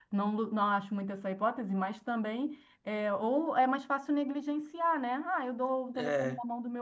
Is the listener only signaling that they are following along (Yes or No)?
Yes